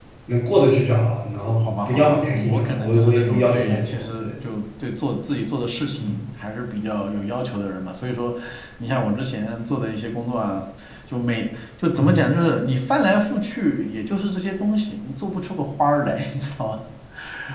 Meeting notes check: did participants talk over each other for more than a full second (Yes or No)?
Yes